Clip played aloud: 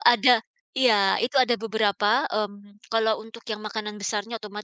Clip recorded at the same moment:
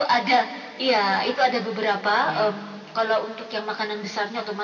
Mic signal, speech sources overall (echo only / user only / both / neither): both